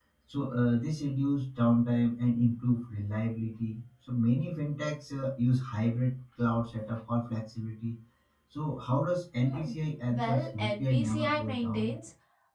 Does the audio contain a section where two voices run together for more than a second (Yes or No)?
Yes